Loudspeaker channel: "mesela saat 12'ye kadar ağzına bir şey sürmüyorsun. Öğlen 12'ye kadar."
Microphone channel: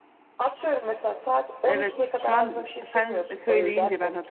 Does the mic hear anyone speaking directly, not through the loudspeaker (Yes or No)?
Yes